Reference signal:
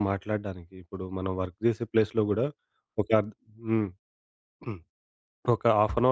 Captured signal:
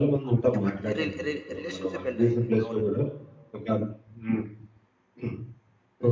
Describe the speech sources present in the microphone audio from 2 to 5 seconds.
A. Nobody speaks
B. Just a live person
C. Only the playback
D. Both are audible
D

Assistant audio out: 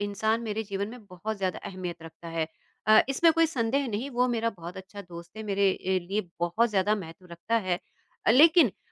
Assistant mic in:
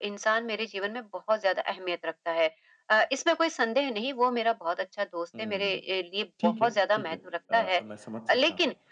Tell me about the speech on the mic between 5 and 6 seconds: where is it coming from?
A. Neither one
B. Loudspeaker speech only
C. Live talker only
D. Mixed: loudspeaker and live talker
D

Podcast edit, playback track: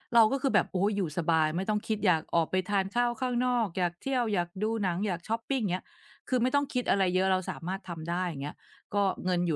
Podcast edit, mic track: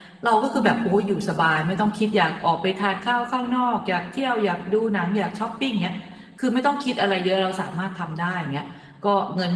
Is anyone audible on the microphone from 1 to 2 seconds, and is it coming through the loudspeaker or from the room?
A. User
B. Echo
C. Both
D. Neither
C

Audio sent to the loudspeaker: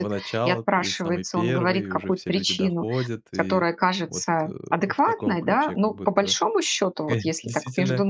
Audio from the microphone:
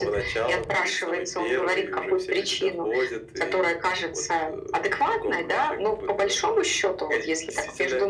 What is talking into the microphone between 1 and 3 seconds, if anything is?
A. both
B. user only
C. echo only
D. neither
C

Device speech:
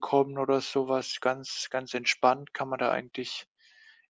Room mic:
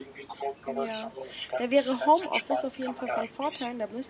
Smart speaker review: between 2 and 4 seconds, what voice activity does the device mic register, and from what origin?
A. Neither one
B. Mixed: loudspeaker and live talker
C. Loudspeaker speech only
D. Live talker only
B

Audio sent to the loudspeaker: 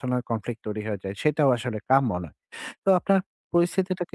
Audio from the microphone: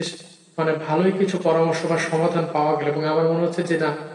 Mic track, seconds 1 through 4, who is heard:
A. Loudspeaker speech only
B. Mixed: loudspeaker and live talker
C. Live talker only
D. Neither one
C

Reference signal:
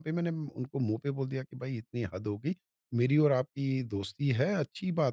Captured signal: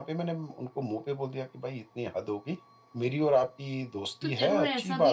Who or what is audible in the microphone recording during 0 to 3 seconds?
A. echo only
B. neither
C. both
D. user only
A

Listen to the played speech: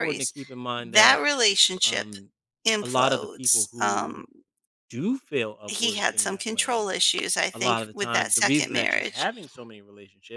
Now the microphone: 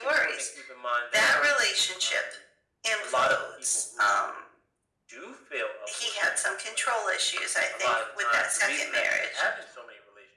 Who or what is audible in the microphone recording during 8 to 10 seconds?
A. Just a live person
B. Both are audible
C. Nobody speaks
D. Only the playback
D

